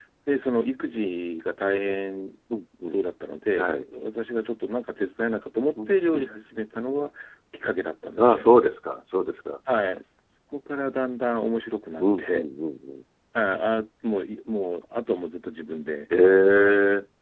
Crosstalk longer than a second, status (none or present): none